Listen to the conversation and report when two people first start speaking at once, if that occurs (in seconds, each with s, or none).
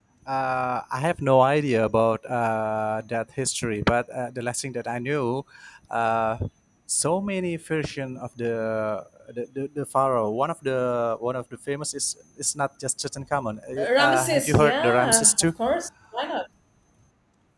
14.0 s